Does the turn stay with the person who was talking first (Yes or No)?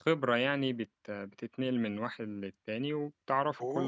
No